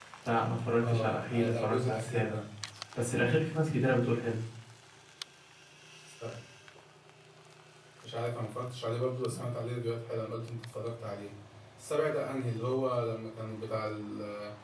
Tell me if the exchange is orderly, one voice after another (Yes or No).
No